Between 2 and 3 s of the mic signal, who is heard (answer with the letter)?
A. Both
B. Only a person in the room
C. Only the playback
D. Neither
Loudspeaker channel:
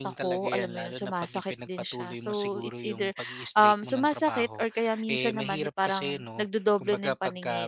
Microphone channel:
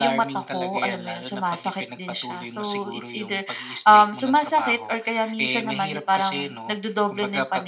C